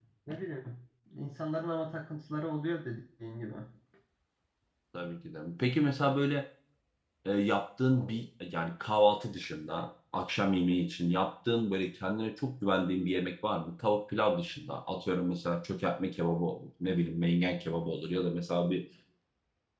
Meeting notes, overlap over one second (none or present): none